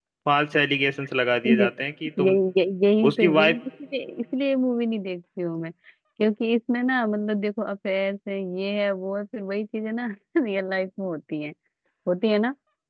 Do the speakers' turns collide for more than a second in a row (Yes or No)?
No